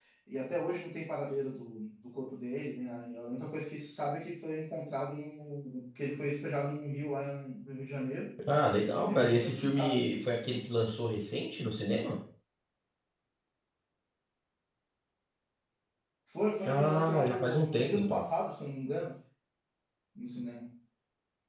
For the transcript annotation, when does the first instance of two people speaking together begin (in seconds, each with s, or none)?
9.1 s